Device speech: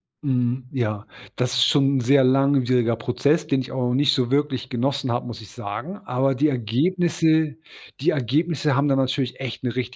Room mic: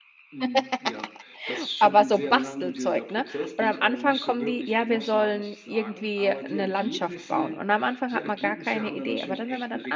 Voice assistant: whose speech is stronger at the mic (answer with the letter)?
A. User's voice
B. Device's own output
A